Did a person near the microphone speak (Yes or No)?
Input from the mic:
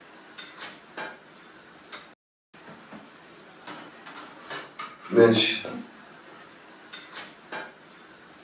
Yes